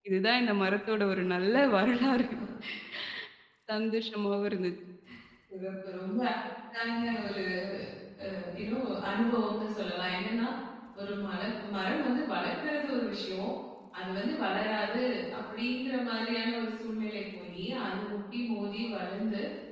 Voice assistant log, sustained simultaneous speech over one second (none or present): none